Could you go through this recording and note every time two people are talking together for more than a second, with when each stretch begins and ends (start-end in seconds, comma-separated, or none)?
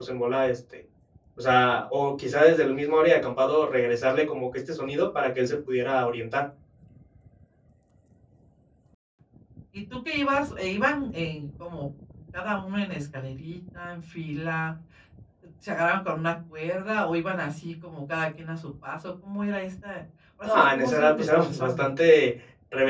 20.4-21.9